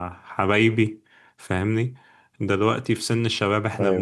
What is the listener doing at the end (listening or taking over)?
listening